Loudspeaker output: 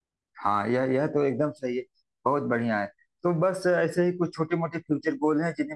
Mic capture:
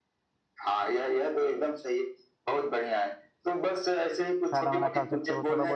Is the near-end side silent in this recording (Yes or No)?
No